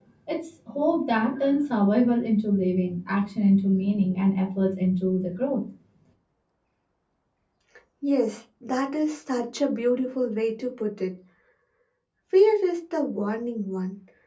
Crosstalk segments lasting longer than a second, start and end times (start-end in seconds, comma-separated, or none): none